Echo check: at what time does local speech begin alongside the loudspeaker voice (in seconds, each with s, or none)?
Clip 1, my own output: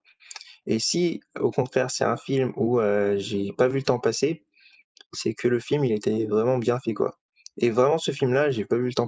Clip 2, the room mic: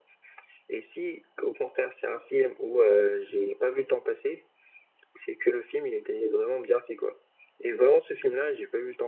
none